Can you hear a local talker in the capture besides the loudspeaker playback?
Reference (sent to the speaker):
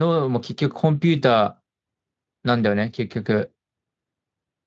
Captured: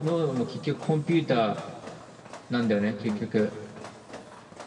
Yes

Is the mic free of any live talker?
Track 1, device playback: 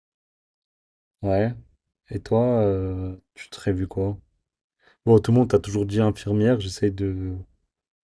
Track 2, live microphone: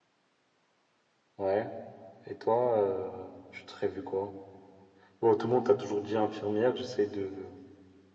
Yes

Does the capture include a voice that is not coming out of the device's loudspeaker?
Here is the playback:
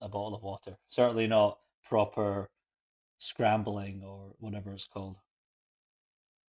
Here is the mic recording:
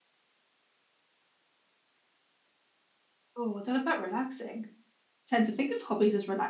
Yes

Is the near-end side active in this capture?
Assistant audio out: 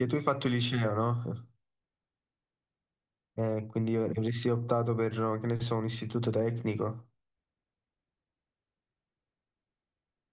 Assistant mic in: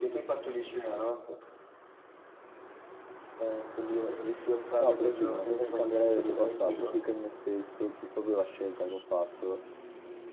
Yes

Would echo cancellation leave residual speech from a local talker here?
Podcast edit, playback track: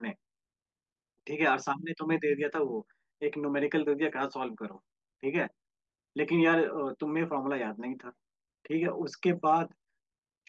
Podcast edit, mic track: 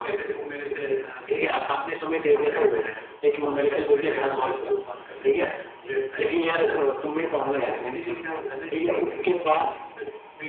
Yes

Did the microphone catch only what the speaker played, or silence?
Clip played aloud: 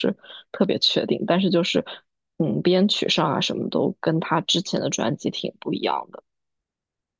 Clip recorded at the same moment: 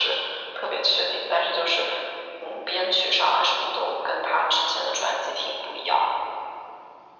Yes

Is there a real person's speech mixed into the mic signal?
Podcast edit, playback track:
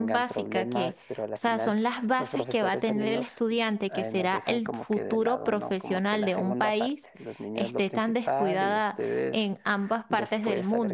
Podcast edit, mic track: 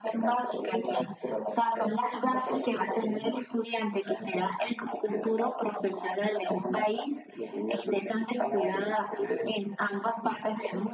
No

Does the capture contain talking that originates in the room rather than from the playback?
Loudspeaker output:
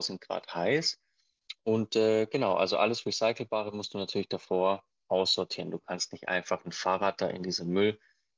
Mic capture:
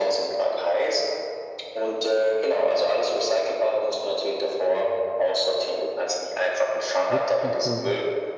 Yes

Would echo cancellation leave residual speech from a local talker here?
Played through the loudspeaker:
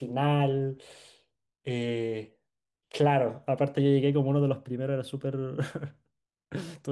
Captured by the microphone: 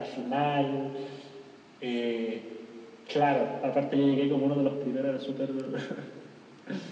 No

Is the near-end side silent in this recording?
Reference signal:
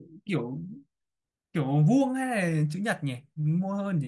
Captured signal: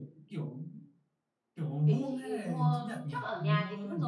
No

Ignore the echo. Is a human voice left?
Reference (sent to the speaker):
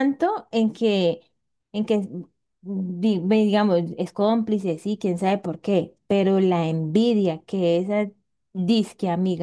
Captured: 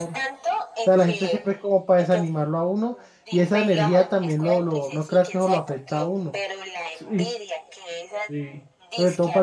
Yes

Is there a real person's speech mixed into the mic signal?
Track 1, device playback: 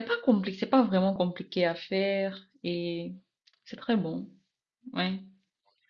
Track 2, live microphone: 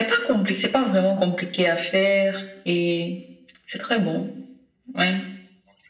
No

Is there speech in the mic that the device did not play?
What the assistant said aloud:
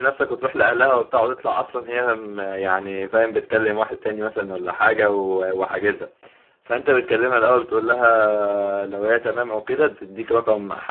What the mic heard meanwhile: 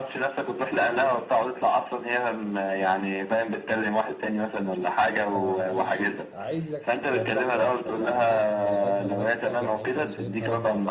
Yes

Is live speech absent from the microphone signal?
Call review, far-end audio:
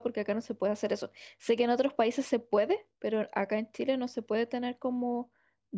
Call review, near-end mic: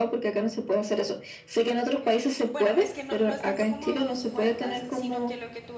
No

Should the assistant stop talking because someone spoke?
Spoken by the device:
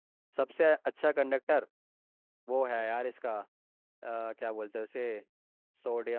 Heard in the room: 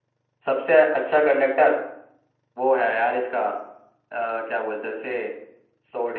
No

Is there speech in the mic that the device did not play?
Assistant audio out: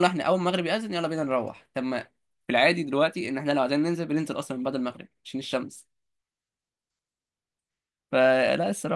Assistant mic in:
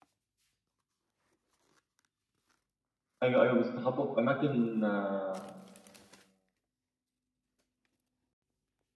Yes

